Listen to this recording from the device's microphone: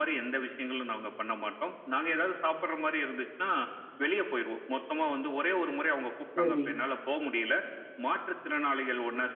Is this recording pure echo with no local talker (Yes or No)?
No